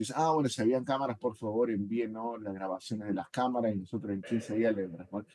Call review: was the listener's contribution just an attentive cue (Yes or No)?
Yes